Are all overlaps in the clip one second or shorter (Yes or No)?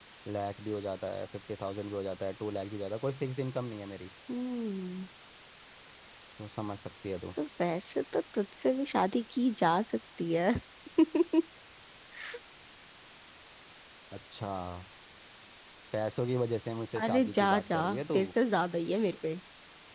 No